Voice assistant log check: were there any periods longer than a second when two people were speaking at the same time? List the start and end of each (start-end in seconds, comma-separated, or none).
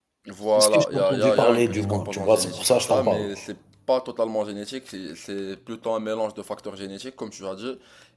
0.6-3.3